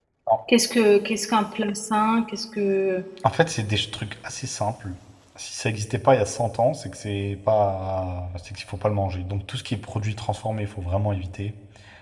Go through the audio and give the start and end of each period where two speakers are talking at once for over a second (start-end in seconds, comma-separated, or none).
none